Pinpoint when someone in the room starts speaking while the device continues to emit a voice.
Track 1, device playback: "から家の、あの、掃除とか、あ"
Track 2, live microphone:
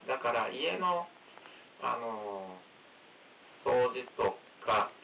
none

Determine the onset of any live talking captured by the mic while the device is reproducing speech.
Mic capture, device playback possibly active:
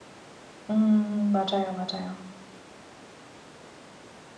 0.7 s

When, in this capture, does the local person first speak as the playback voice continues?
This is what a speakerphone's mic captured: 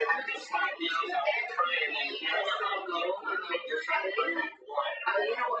none

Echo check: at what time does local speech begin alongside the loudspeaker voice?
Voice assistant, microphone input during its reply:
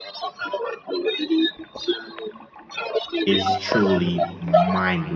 3.2 s

